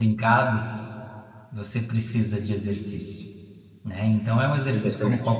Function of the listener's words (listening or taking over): listening